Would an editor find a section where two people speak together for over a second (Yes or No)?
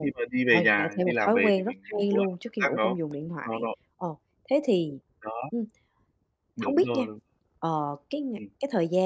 Yes